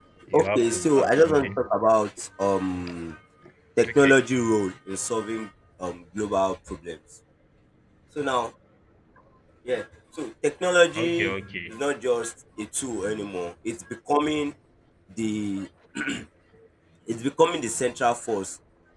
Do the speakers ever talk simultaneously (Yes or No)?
Yes